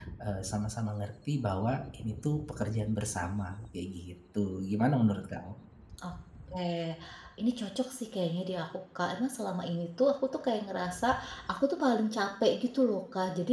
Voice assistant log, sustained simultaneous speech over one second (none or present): none